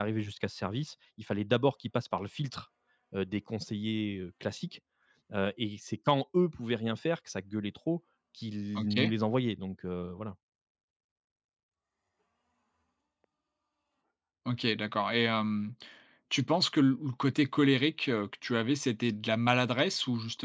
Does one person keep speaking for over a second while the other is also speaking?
No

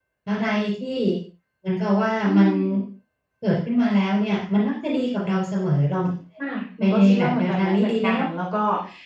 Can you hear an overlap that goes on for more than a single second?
Yes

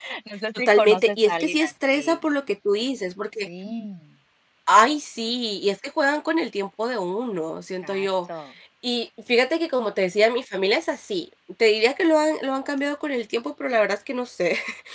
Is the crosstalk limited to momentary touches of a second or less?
No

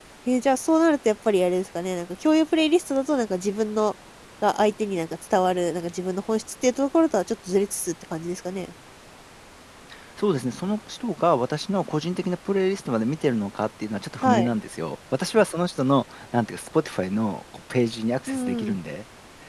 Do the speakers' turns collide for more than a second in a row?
No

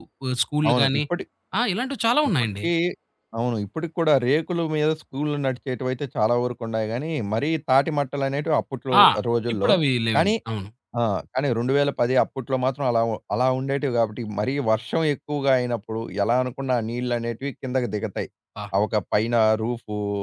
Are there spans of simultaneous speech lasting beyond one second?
No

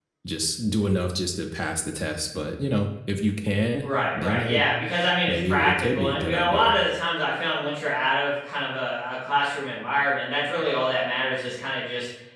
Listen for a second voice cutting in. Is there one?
Yes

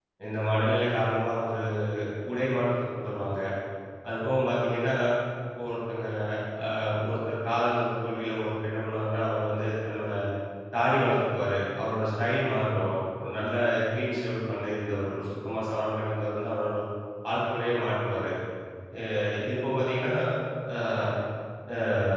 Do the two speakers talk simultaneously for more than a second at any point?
No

